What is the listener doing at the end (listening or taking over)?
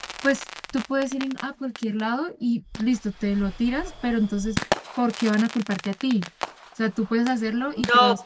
taking over